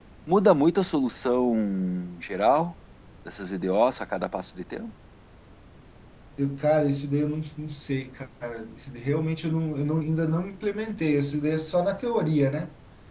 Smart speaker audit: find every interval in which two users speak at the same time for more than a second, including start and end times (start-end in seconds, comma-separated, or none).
none